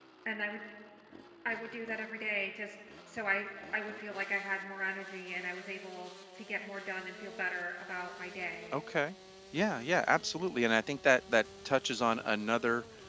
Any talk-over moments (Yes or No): No